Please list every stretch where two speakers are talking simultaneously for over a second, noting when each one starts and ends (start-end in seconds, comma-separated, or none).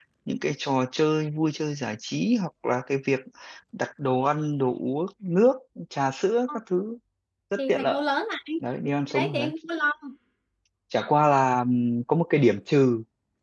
none